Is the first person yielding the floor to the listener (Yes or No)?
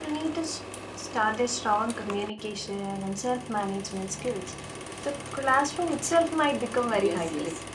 Yes